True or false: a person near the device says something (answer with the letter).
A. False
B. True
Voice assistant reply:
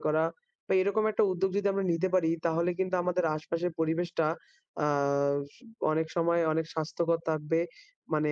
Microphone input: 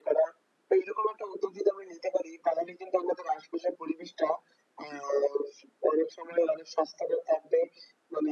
A